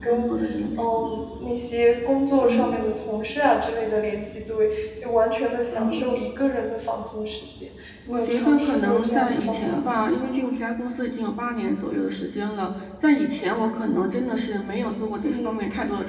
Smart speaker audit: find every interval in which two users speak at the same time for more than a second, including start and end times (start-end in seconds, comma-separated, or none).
8.1-9.8